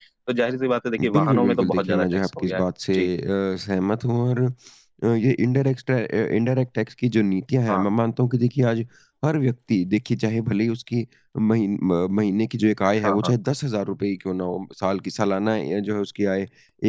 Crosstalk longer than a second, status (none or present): present